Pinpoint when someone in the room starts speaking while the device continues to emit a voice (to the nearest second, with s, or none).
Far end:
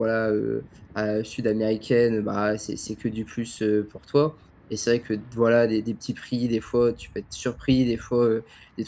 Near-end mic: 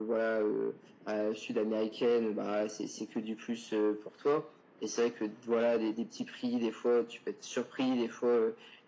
none